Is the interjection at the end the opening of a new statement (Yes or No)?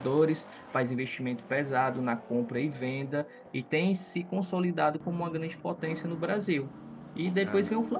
No